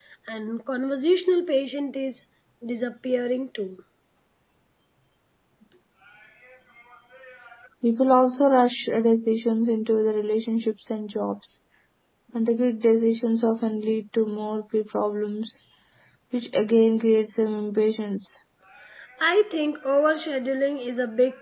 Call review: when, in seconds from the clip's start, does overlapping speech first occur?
none

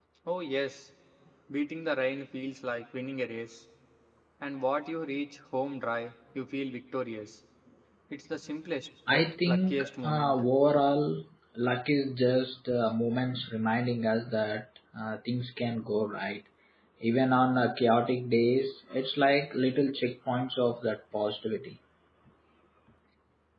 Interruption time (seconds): 9 s

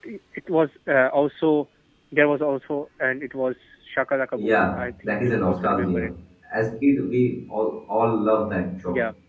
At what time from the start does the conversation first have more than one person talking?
4 s

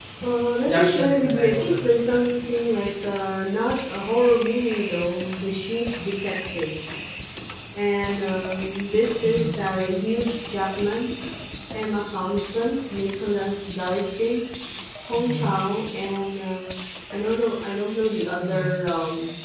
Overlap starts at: 1 s

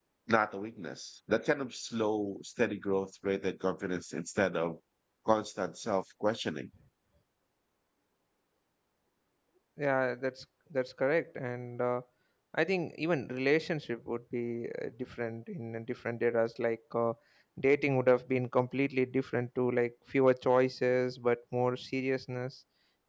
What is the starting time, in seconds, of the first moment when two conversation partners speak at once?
none

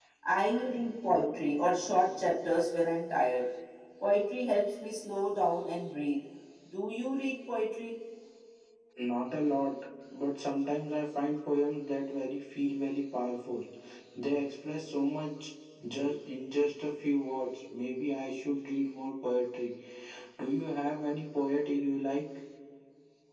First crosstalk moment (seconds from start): none

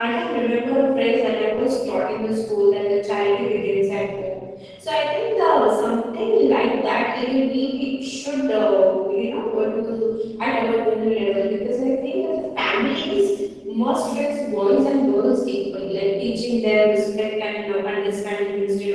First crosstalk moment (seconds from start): none

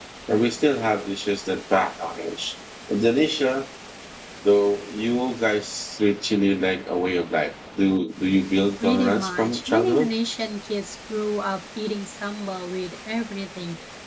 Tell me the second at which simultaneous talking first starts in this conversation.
9 s

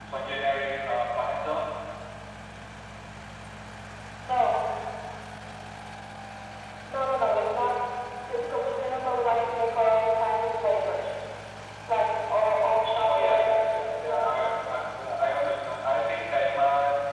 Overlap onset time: 13 s

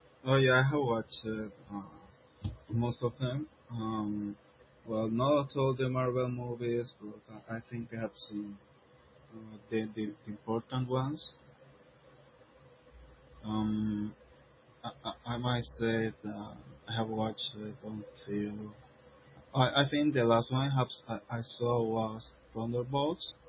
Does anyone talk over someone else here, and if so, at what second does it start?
none

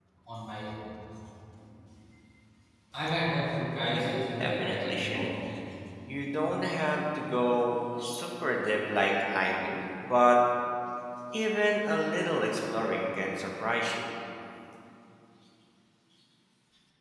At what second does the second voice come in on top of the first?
4 s

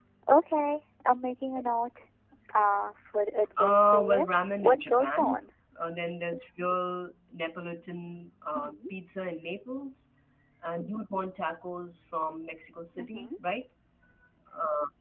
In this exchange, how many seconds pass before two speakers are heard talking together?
4 s

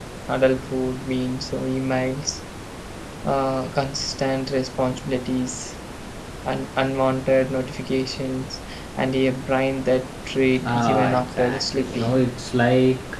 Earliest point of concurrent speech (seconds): 11 s

